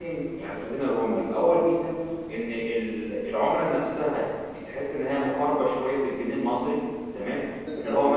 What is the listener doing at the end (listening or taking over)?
listening